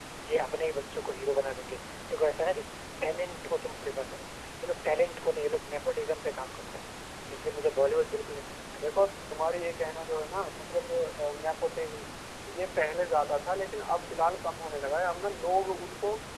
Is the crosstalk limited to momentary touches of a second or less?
Yes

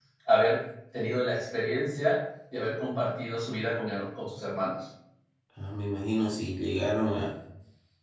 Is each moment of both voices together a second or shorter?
Yes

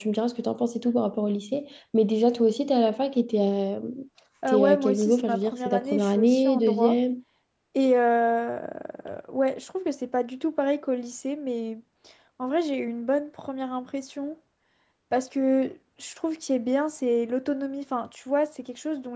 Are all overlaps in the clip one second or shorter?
No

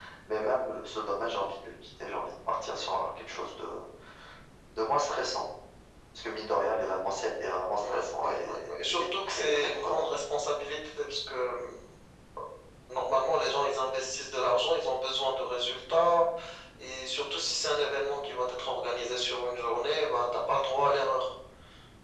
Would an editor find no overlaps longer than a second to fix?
No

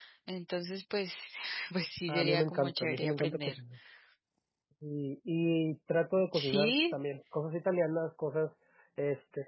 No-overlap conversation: No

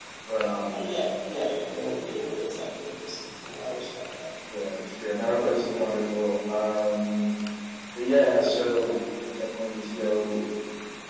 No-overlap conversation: Yes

